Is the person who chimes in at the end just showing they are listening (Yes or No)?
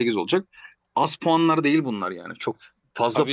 No